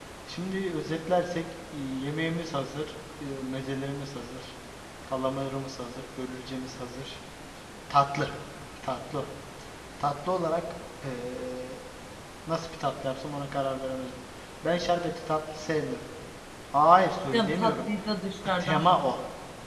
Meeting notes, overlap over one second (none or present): none